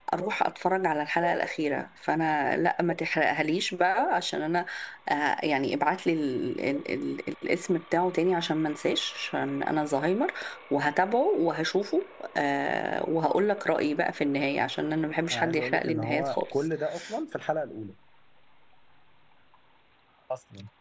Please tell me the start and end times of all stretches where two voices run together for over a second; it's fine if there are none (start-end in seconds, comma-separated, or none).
15.3-16.7